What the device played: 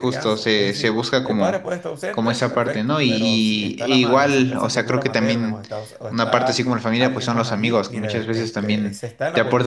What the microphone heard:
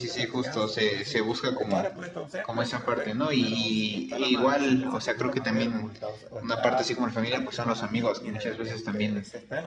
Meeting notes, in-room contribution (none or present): none